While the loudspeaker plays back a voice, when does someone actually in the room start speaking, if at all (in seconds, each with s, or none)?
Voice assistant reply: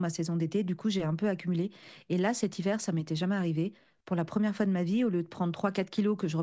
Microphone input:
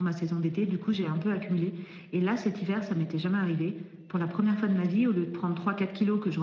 none